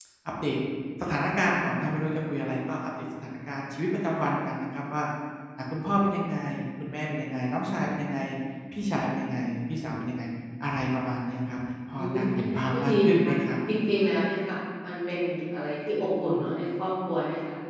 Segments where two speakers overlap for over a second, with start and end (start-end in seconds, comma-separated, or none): 11.9-13.3